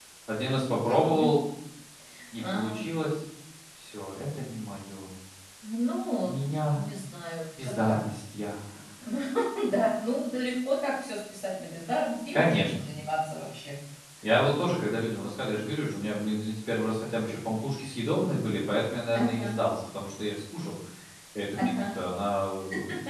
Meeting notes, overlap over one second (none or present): none